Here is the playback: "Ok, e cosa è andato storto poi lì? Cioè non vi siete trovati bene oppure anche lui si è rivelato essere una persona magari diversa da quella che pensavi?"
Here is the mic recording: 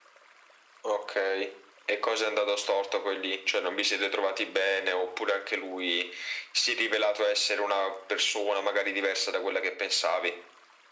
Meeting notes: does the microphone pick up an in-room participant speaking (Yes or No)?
No